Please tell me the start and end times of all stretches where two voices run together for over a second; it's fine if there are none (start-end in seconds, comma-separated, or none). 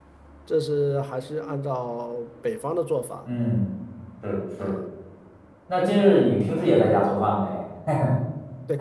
none